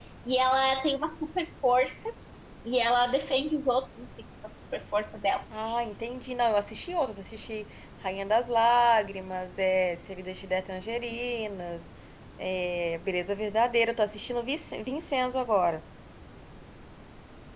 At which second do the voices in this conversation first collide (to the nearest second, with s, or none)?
none